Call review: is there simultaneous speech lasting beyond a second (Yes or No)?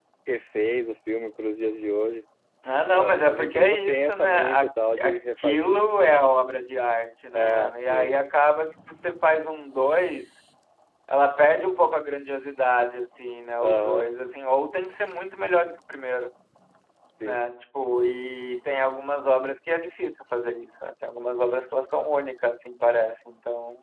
Yes